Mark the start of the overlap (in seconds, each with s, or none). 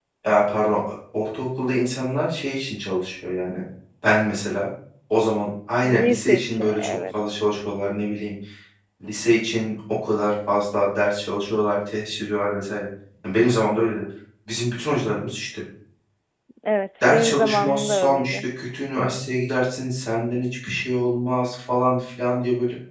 5.8 s